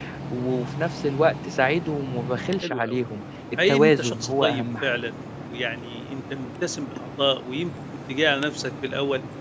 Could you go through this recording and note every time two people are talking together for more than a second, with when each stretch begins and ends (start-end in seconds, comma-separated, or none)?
3.7-5.0